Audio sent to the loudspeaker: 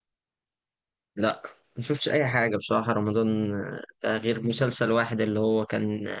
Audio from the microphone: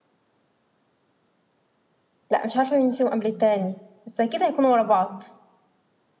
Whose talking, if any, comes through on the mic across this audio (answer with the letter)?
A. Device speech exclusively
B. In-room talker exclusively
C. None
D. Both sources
B